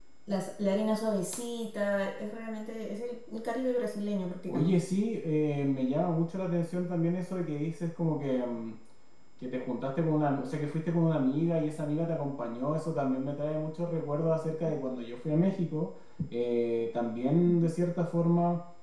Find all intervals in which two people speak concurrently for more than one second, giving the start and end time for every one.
none

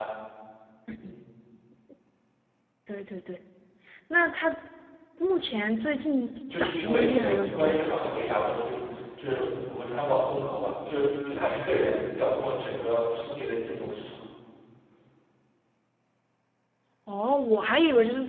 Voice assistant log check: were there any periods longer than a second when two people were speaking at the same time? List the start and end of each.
6.6-8.2

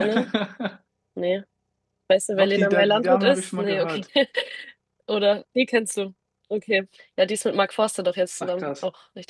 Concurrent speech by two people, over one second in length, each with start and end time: 2.3-4.0

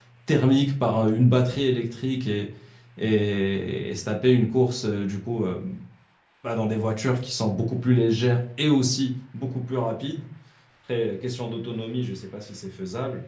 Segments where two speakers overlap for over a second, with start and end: none

